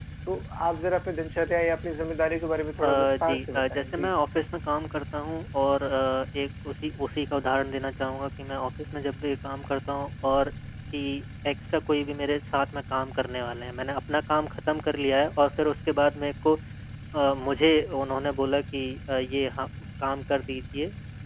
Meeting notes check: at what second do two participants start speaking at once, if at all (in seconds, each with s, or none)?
2.8 s